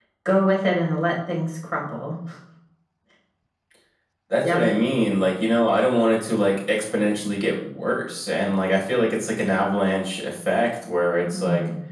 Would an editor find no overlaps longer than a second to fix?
Yes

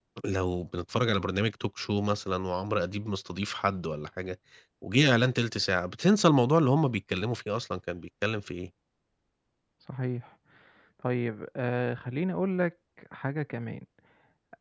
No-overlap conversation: Yes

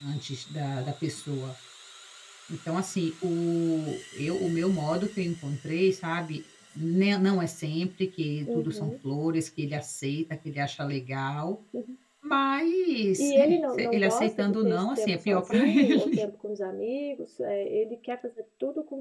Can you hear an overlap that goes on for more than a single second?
Yes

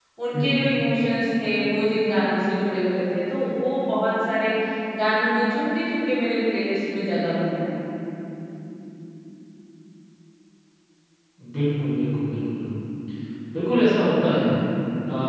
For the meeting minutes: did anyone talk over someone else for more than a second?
No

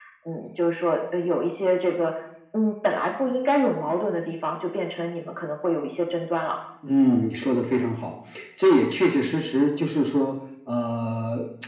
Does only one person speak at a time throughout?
Yes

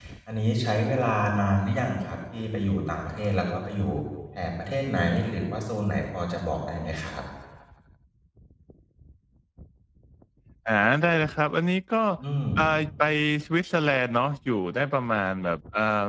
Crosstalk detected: No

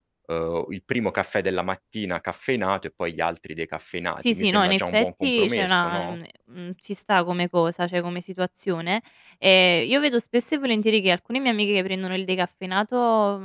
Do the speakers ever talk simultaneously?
Yes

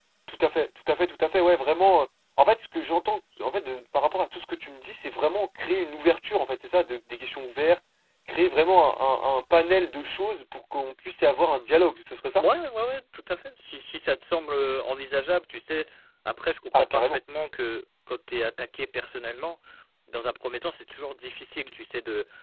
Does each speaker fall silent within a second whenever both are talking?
Yes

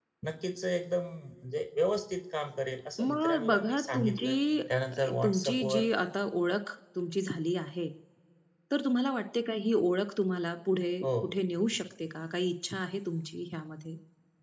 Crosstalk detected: Yes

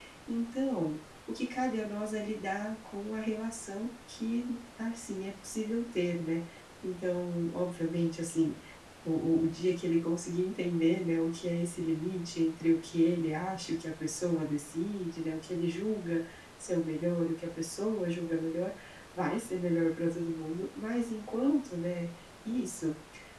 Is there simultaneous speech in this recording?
No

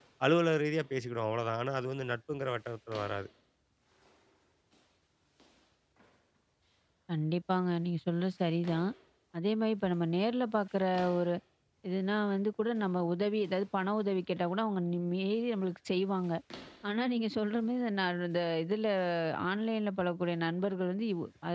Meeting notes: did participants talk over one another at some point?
No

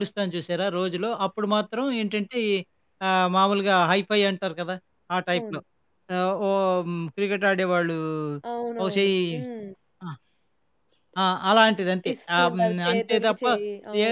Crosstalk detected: Yes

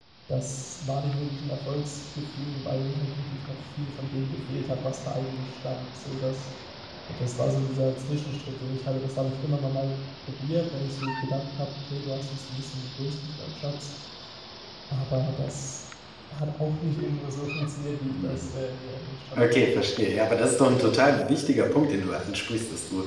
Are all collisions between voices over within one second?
Yes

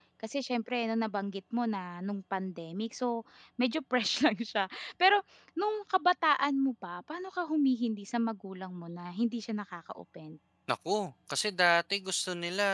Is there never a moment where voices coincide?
Yes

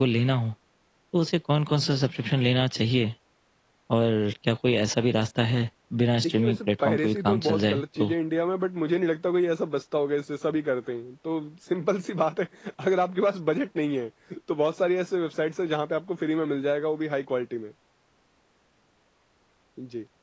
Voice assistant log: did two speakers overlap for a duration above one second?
Yes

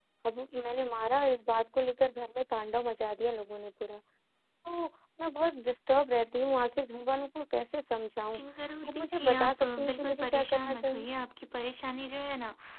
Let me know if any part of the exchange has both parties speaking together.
Yes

